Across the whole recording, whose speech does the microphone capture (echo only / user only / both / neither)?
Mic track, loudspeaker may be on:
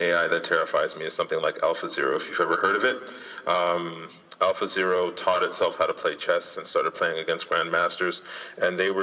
echo only